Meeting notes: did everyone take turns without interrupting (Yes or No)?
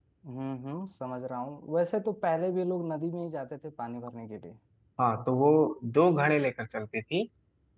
Yes